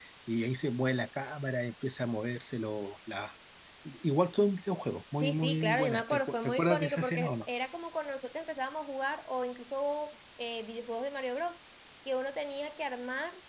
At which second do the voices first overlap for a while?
5.2 s

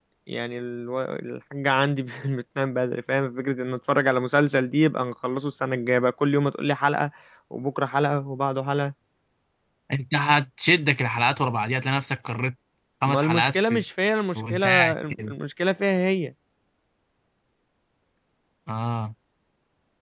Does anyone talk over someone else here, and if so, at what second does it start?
13.0 s

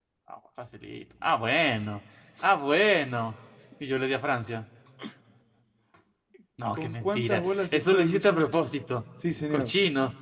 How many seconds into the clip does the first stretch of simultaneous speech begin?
6.8 s

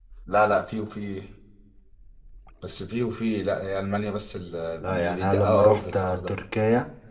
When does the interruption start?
4.8 s

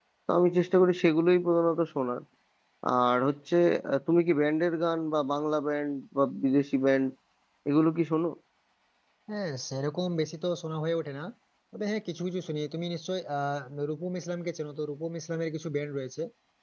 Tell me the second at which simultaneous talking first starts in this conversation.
none

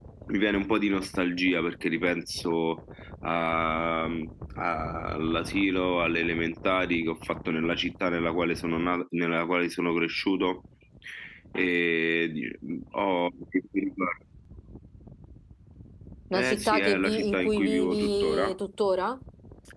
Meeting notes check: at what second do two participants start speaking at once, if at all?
16.3 s

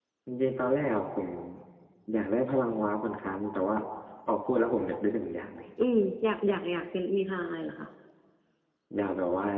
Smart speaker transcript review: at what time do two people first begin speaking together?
none

